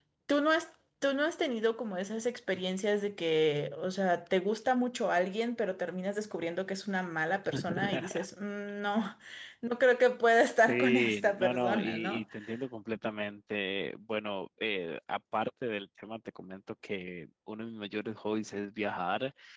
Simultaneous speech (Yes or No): Yes